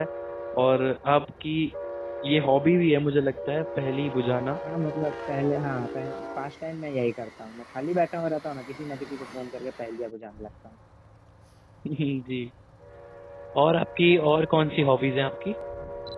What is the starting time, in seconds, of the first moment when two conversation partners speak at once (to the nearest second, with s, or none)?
none